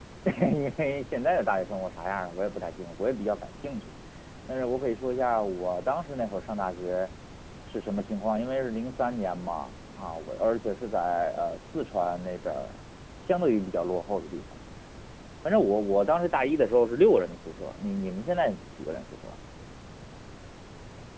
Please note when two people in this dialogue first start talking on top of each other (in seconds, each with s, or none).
none